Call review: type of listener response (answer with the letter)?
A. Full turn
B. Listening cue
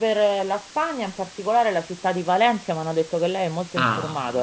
A